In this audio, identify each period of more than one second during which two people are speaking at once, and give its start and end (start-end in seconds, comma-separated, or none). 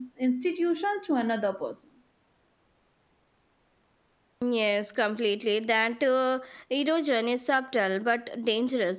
none